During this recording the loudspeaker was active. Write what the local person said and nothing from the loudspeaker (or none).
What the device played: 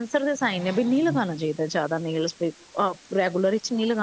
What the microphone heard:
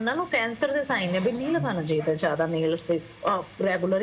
none